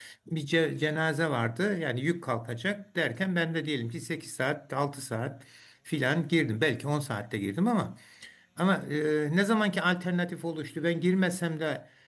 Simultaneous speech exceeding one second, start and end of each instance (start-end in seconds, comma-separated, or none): none